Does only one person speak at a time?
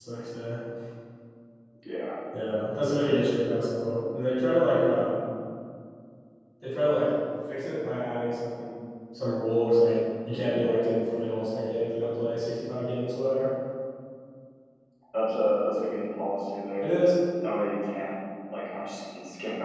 Yes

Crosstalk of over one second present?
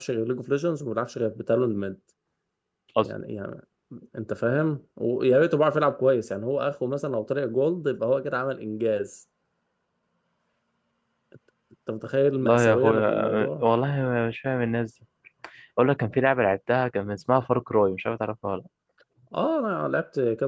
Yes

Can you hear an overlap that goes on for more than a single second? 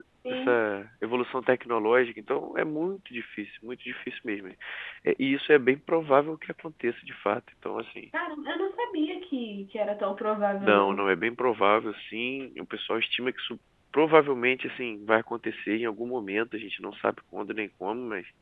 No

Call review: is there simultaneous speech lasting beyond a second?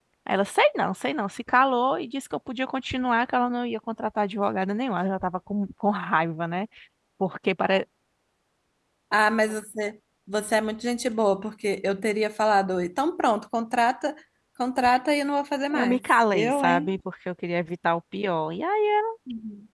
Yes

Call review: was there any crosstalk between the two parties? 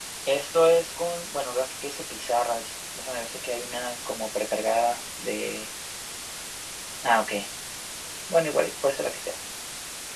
No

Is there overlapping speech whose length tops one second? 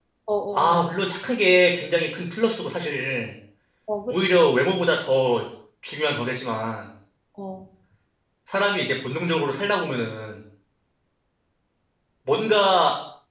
No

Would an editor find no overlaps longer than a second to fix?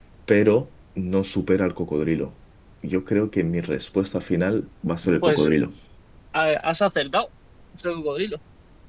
Yes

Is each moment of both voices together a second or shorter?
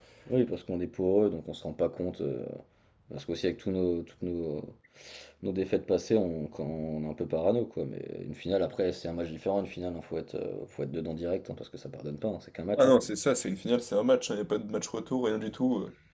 Yes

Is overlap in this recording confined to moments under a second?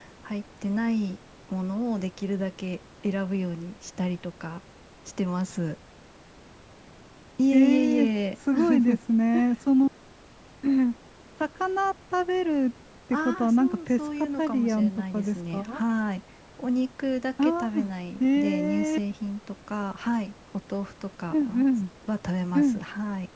No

